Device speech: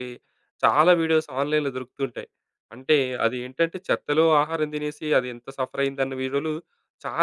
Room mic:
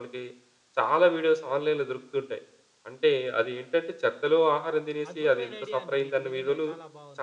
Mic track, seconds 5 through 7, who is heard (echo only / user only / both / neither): both